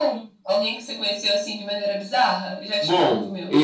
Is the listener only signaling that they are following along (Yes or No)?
No